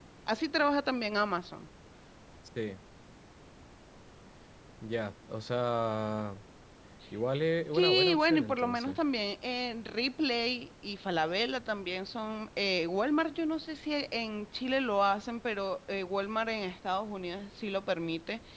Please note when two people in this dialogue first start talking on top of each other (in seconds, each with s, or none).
7.7 s